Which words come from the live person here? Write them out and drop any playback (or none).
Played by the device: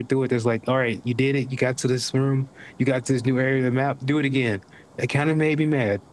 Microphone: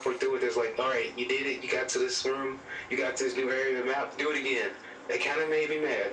none